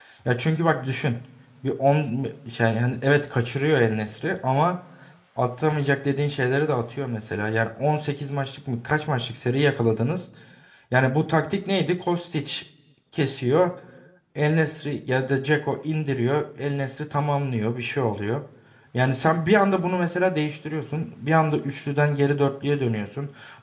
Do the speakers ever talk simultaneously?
No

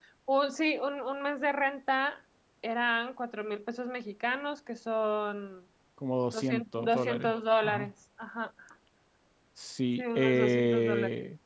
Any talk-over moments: Yes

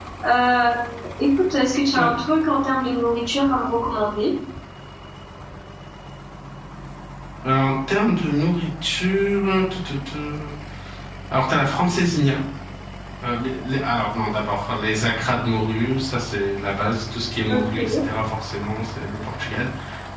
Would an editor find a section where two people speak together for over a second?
No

